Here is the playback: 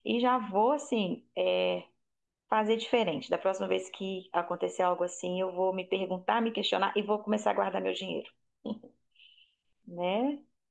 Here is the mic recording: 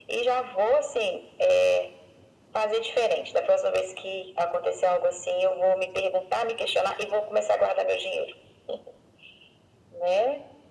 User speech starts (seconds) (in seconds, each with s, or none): none